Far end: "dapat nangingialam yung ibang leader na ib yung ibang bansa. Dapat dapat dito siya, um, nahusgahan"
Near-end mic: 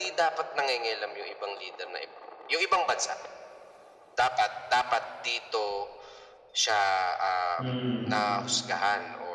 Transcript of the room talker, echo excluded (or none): Mm.